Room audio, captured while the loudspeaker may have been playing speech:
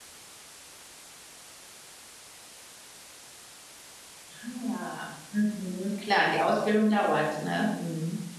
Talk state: user only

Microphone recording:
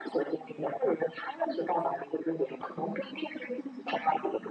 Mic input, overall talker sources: both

